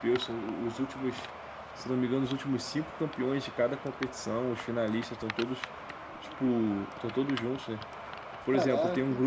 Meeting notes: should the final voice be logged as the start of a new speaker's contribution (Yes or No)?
No